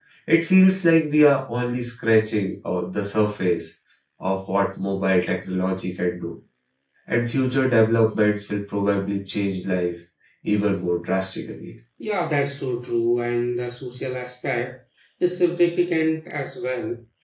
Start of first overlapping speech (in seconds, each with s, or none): none